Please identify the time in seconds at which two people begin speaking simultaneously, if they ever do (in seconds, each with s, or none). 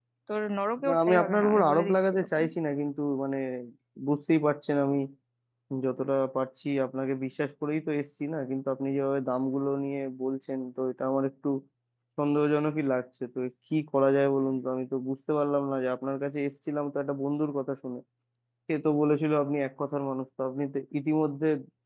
0.8 s